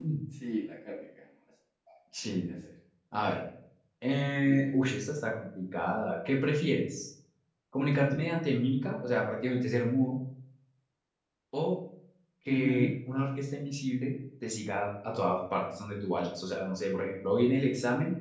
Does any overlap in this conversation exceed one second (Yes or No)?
No